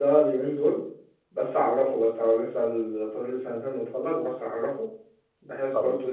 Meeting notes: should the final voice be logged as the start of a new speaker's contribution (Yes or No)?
No